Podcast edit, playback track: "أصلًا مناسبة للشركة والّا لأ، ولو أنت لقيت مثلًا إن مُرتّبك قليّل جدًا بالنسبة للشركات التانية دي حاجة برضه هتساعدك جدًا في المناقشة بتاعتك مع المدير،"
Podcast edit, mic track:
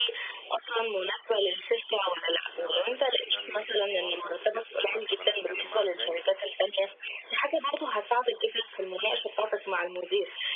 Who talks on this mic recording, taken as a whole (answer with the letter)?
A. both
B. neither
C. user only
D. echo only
A